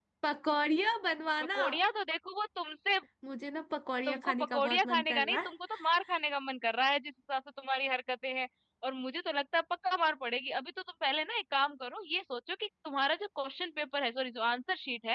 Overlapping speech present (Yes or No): Yes